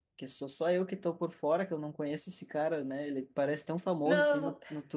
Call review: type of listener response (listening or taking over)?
listening